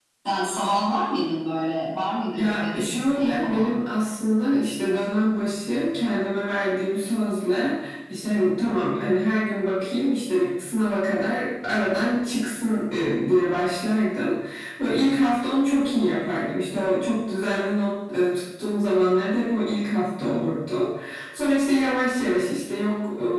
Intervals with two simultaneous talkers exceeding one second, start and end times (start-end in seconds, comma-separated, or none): 2.3-3.7